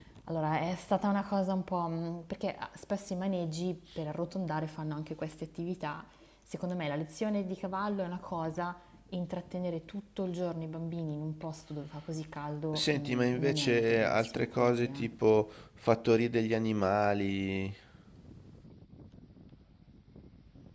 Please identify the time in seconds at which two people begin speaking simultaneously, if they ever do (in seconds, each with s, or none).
12.7 s